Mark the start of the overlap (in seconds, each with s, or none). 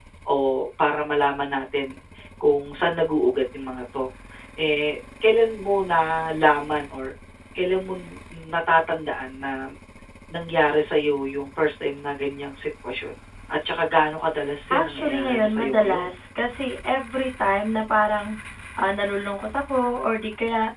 14.7 s